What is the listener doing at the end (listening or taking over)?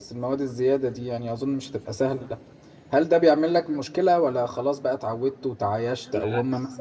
listening